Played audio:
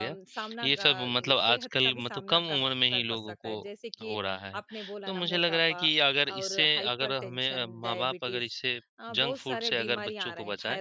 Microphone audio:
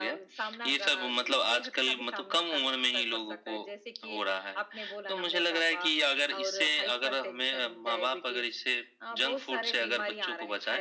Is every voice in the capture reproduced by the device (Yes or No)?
Yes